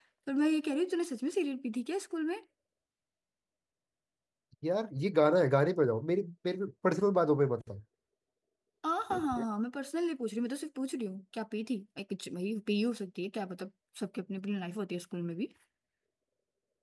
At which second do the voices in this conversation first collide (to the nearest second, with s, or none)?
none